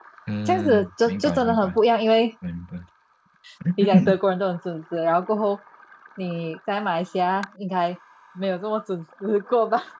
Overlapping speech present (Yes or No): Yes